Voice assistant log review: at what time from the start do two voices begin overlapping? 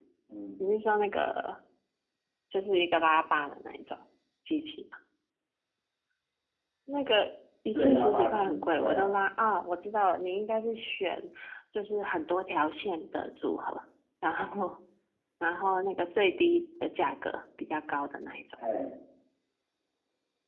8 s

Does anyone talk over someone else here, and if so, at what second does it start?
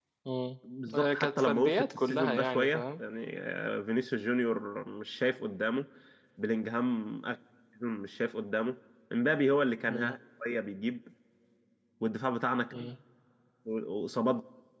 1 s

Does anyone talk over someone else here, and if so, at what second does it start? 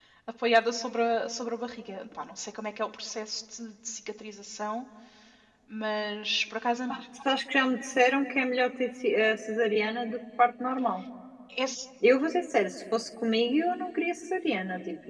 none

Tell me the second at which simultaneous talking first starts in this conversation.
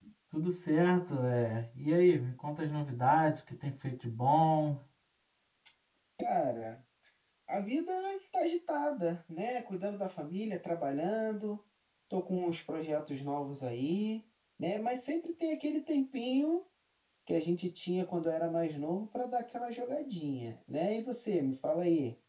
none

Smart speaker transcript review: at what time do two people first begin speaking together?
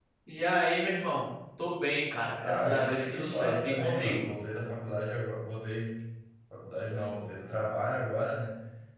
2 s

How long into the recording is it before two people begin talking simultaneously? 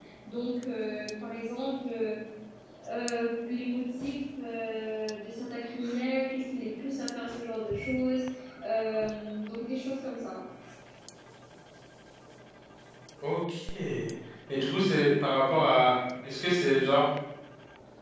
none

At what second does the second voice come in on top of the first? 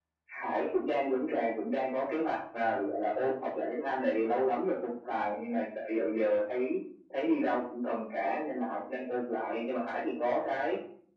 none

